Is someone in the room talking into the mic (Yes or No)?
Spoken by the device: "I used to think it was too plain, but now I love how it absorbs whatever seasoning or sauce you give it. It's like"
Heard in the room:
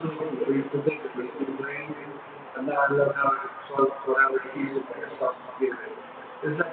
No